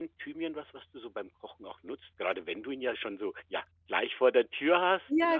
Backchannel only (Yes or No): No